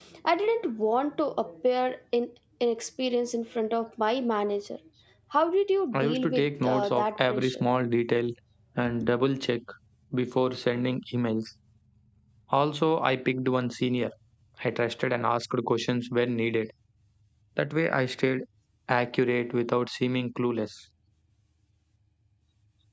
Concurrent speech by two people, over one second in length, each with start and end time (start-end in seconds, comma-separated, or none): 5.9-7.6